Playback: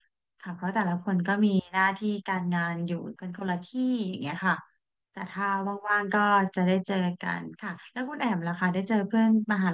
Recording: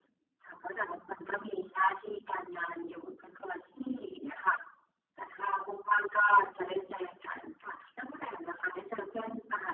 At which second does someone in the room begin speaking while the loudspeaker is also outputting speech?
none

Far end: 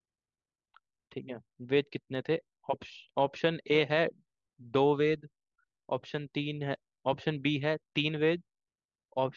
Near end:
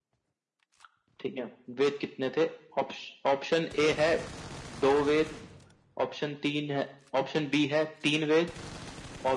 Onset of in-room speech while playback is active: none

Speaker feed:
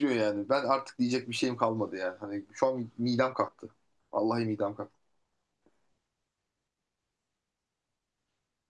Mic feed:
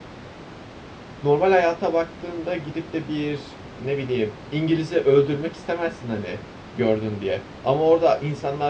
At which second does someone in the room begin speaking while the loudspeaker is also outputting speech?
1.2 s

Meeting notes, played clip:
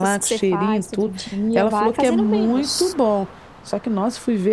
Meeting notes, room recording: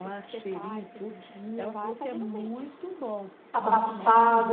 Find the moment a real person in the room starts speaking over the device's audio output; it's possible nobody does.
3.5 s

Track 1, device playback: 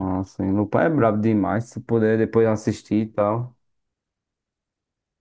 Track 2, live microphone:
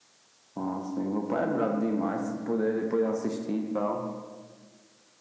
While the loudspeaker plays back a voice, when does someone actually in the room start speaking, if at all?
none

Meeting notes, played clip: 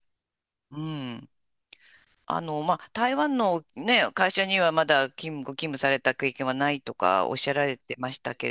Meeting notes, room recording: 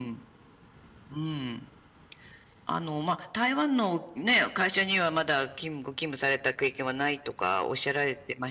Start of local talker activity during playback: none

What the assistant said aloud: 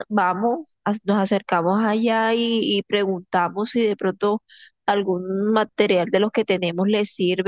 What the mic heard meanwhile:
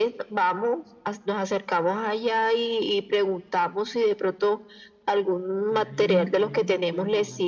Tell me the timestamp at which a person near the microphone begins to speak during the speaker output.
5.6 s

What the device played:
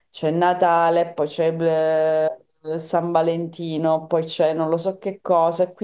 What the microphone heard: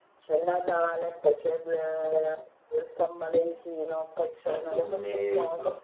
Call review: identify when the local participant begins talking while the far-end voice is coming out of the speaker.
4.4 s

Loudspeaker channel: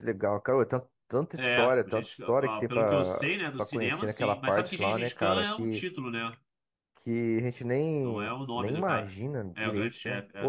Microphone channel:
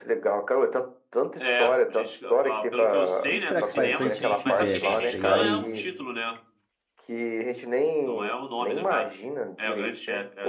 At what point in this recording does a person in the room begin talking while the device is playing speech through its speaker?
3.2 s

